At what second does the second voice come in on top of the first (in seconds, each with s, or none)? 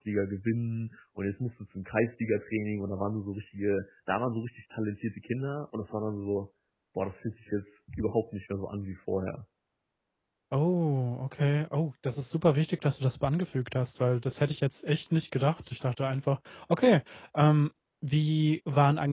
none